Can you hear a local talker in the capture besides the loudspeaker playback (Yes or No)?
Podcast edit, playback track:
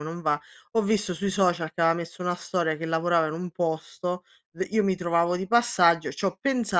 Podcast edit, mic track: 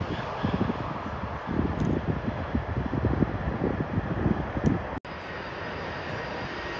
No